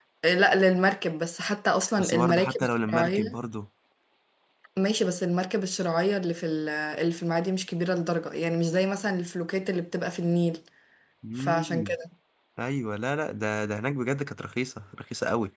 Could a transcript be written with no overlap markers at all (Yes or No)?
No